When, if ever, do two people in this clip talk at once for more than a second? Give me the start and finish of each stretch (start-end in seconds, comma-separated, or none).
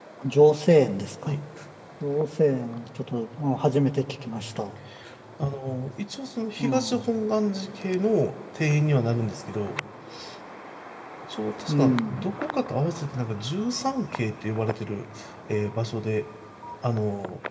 none